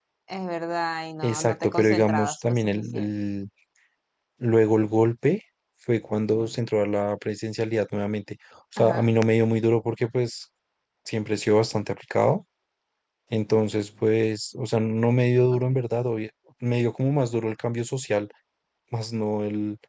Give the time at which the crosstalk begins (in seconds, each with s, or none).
1.2 s